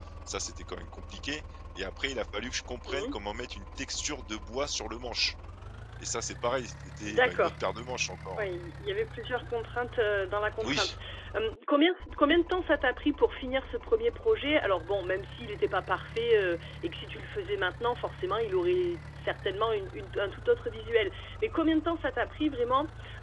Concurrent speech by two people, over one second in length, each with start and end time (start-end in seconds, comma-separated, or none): none